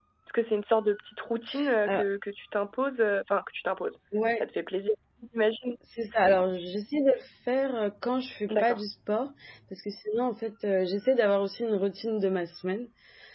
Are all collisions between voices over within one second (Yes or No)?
Yes